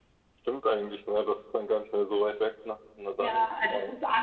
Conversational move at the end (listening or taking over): taking over